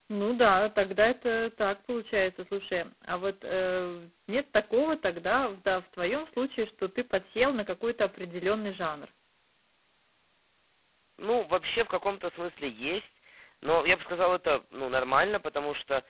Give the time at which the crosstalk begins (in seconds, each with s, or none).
none